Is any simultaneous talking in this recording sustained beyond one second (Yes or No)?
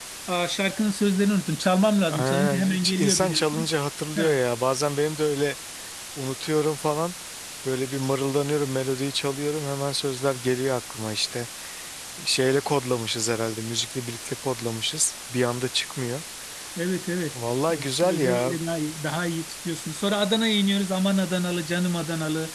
Yes